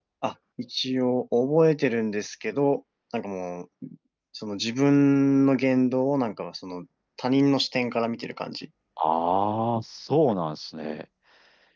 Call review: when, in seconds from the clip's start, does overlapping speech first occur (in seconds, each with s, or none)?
none